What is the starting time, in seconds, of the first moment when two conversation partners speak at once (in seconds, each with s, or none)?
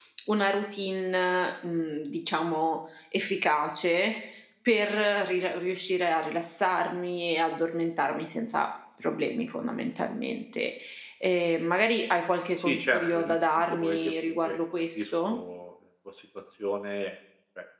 12.6 s